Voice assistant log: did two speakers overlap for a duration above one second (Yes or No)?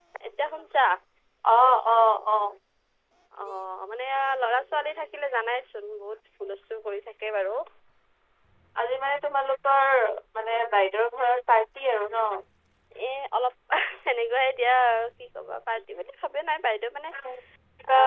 No